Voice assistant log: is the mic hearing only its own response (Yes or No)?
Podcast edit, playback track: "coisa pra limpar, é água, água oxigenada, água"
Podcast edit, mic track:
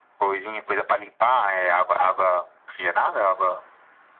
Yes